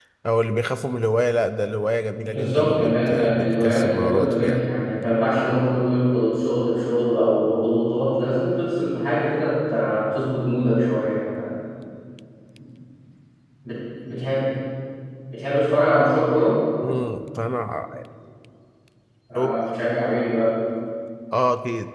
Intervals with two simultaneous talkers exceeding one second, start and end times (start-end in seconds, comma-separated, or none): 2.2-4.6